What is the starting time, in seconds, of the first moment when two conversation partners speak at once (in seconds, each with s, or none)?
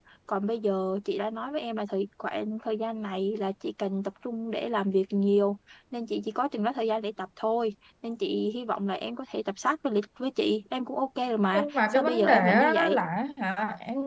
11.5 s